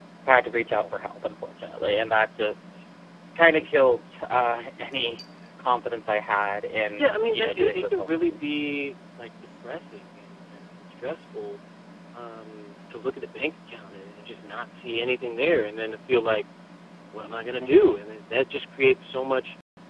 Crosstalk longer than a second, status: present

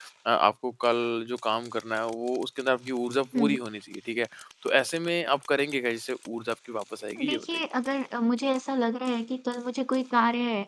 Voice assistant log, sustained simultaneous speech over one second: none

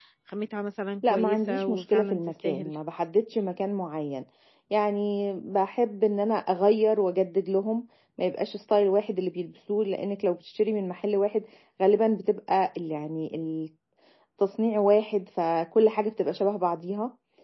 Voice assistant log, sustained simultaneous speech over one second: present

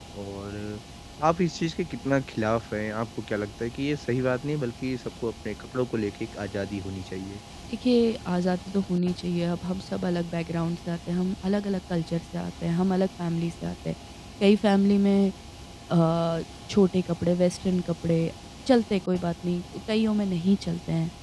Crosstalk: none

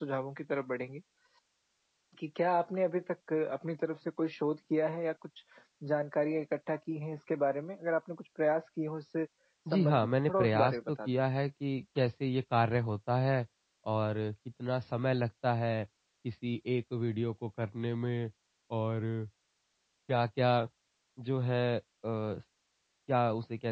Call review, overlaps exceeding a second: present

